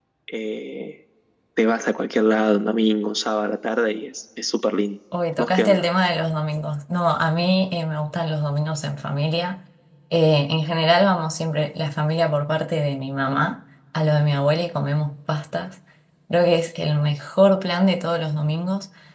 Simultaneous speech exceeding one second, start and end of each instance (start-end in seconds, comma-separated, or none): none